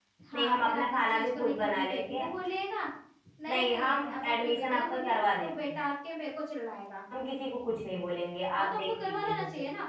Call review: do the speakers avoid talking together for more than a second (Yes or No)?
No